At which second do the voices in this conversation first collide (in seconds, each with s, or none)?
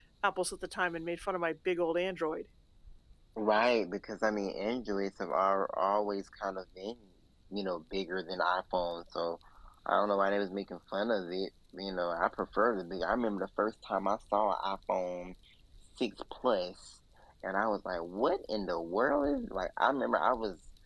none